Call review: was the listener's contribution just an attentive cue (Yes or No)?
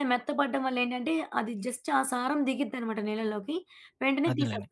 Yes